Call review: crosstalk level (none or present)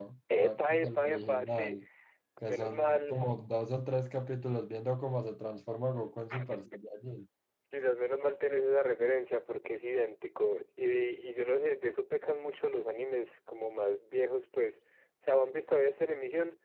present